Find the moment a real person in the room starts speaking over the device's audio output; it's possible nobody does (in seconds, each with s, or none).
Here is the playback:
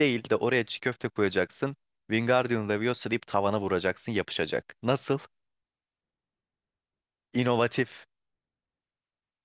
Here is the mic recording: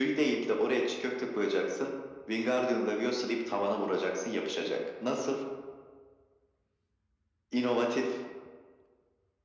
none